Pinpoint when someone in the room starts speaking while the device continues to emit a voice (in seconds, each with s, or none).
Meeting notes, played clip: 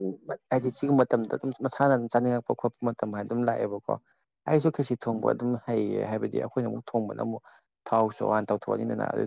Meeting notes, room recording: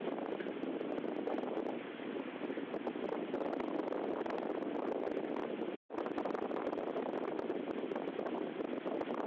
none